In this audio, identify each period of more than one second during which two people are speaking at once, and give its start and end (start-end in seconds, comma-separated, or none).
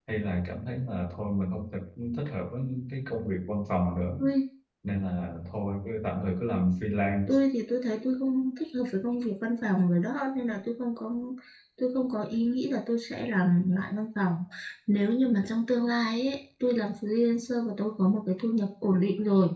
none